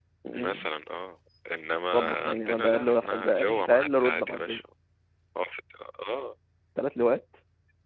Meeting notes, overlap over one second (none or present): present